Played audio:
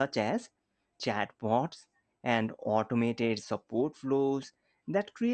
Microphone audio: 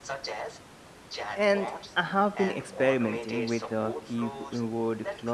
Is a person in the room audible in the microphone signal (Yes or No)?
Yes